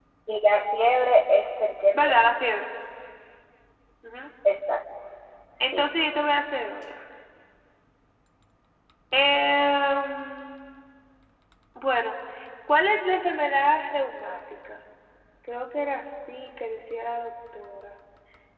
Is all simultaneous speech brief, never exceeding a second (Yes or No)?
Yes